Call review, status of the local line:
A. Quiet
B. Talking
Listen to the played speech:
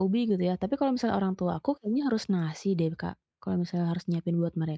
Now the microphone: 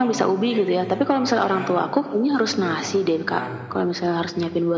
B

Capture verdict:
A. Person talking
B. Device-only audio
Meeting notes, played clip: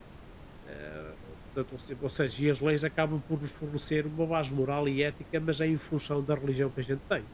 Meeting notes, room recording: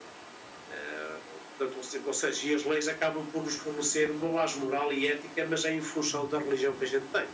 A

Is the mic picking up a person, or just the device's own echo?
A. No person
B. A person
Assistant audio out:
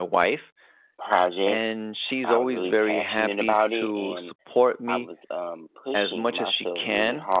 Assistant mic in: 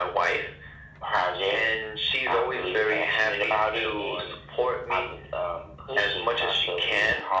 A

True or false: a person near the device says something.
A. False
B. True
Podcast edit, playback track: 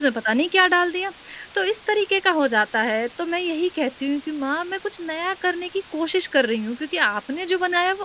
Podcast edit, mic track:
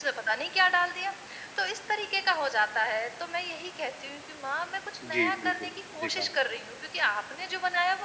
B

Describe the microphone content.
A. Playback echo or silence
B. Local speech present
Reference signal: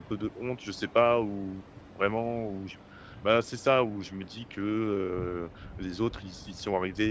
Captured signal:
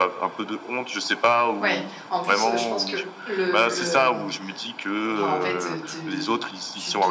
B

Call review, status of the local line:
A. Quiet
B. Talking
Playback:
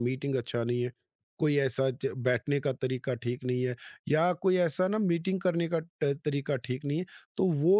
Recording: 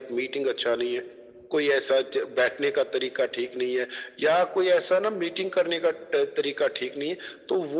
A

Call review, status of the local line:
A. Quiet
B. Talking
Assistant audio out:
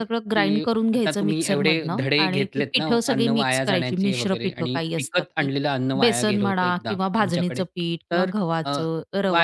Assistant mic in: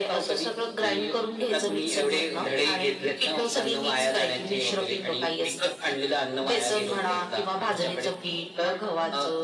A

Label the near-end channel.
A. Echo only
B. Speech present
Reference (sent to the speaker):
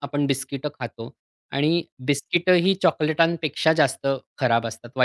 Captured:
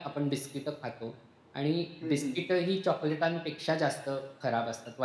B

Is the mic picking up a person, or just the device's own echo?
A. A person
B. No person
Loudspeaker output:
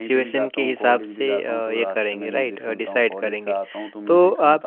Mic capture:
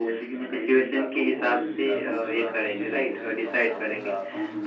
A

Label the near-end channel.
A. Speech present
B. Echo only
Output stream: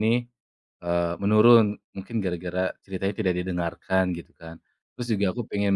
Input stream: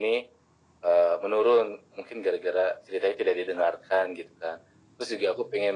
B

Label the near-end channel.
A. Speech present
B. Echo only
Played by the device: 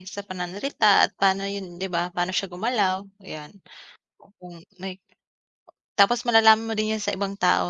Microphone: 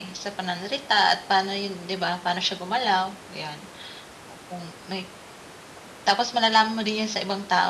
B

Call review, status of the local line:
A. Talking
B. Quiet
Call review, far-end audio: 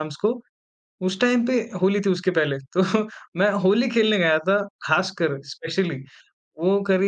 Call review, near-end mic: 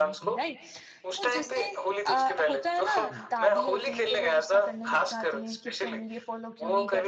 A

